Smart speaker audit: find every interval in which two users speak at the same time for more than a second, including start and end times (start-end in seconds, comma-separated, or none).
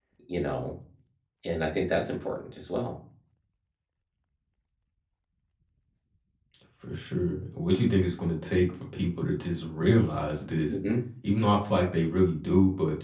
none